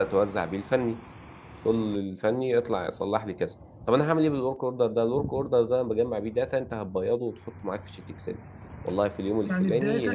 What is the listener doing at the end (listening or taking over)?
taking over